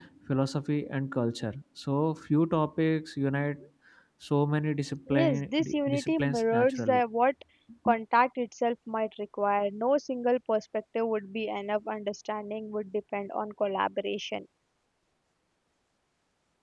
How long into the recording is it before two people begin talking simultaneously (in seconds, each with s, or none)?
5.1 s